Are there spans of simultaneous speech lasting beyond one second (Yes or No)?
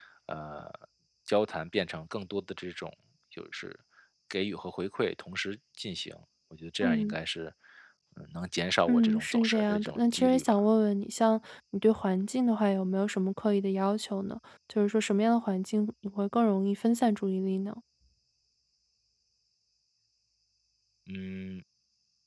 Yes